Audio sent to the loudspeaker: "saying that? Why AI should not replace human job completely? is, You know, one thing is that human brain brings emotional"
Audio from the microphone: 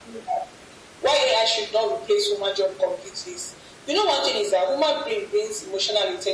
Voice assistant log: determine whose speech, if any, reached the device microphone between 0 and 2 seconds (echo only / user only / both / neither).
echo only